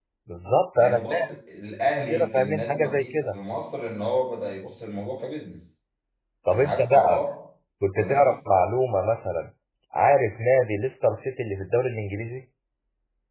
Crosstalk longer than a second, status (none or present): present